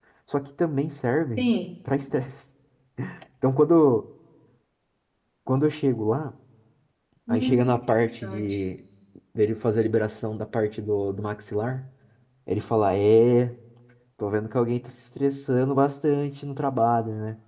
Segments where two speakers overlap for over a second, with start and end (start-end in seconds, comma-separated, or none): 7.3-8.5